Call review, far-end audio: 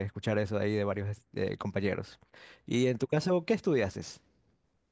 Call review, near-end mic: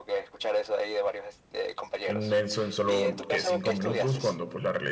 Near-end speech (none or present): present